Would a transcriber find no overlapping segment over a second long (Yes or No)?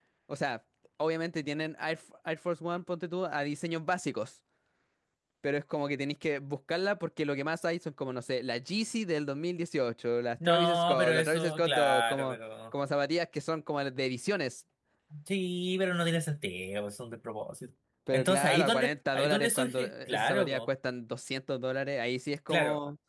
No